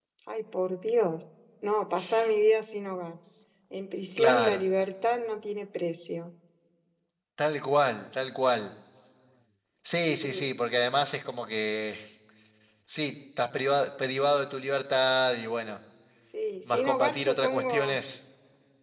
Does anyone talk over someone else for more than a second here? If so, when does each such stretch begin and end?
16.7-18.0

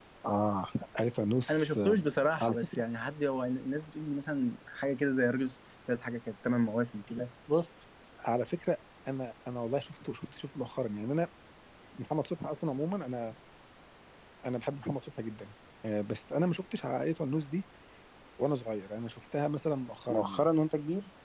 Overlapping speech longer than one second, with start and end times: none

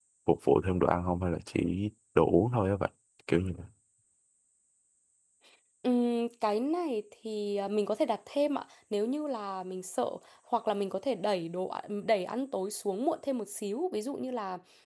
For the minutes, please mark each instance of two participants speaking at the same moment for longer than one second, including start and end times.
none

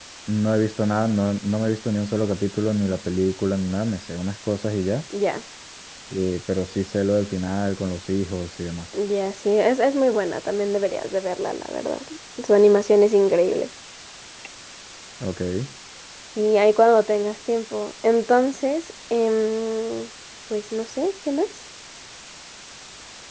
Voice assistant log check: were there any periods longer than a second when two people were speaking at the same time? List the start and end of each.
none

